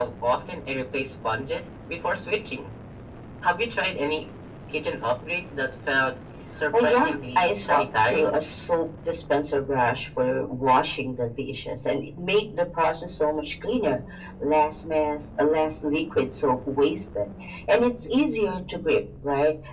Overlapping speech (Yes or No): Yes